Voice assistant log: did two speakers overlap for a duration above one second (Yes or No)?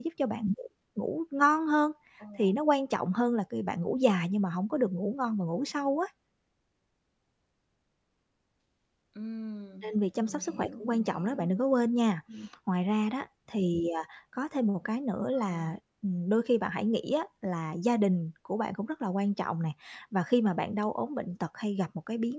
Yes